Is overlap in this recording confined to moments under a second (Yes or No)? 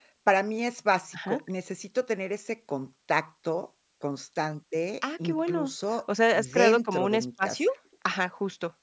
No